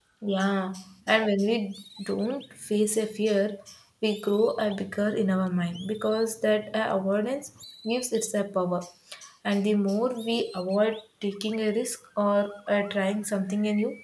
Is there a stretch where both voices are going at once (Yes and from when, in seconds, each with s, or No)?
No